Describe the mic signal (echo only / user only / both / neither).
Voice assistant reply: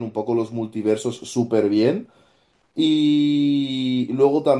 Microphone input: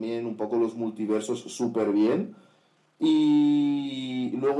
echo only